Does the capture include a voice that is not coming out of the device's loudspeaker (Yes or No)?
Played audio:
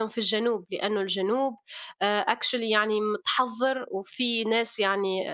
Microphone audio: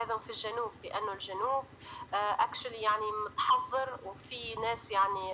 No